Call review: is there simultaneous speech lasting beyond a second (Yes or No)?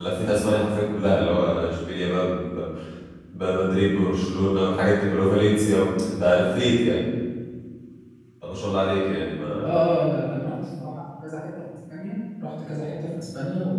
No